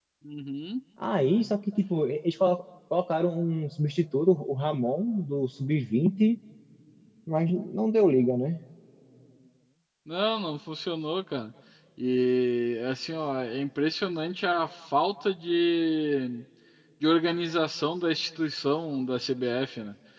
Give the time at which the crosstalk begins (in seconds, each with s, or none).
none